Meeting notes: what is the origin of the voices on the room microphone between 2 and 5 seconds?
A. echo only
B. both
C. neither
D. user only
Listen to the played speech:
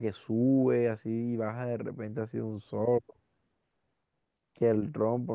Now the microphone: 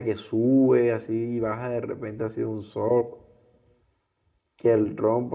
A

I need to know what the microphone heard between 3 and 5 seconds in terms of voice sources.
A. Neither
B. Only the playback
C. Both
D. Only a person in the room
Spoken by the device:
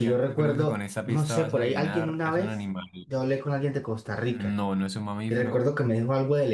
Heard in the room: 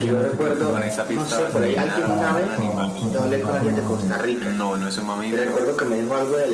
C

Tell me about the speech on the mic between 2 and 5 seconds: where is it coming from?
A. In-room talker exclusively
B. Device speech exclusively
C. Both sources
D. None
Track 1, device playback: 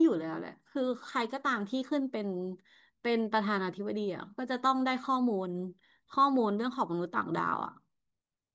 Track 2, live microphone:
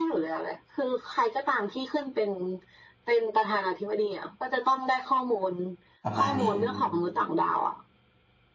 B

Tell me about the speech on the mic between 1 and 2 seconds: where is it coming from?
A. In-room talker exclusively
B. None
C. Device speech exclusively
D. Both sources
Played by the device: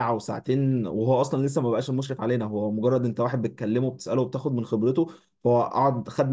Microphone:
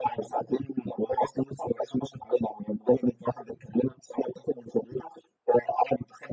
C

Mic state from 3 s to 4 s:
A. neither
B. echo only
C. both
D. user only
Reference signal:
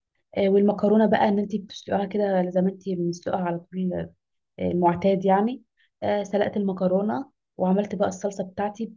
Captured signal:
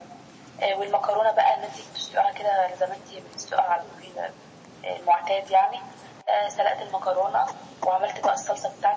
B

